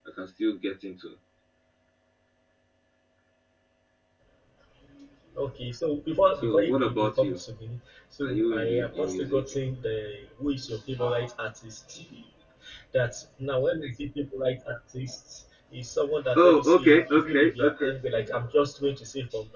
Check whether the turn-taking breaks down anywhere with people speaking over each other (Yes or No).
Yes